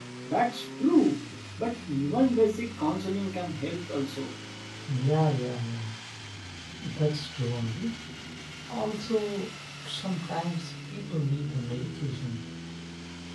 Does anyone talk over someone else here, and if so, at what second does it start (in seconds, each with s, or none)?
none